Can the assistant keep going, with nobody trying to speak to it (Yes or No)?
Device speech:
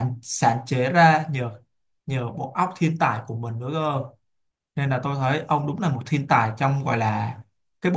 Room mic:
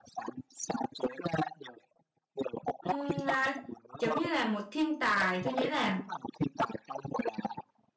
No